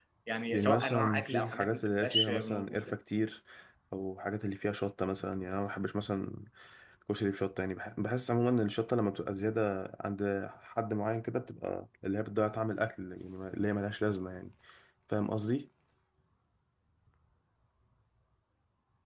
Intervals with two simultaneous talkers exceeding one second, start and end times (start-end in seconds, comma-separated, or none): 0.5-3.0